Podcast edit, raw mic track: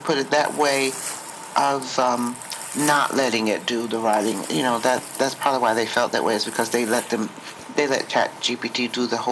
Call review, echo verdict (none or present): present